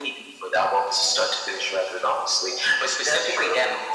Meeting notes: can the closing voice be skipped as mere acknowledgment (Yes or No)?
Yes